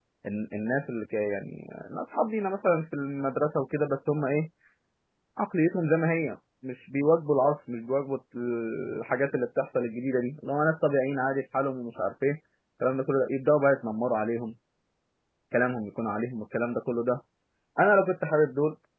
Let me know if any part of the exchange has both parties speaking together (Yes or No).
No